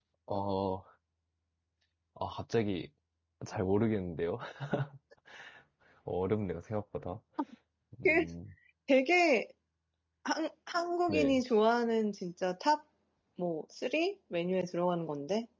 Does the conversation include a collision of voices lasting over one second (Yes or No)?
No